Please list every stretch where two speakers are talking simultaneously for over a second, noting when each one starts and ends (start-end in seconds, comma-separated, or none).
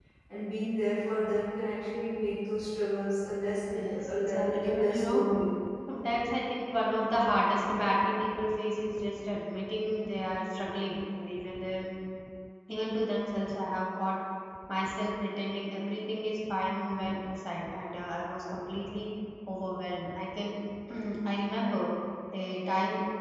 3.7-5.2